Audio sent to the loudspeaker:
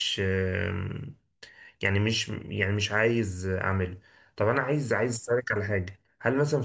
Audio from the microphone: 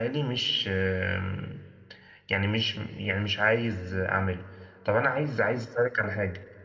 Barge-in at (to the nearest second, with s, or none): none